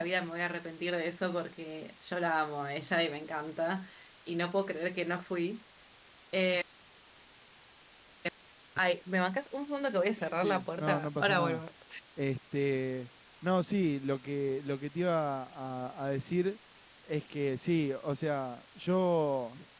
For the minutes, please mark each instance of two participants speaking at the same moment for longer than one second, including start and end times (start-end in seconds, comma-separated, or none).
10.2-11.6